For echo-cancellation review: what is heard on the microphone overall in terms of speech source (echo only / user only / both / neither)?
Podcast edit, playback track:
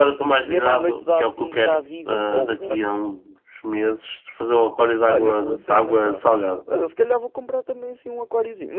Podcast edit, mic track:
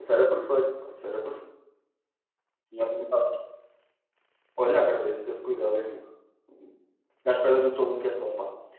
user only